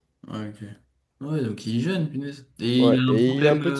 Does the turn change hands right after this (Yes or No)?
Yes